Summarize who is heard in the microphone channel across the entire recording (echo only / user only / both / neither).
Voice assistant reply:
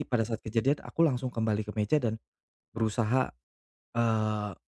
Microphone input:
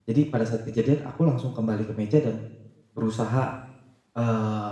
echo only